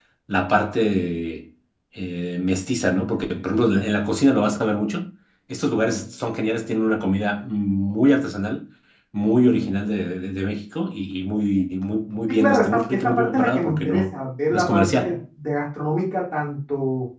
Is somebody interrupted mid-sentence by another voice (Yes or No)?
Yes